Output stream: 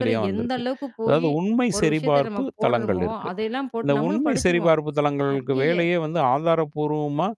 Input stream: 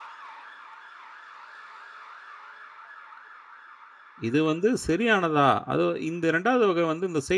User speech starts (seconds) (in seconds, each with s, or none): 4.3 s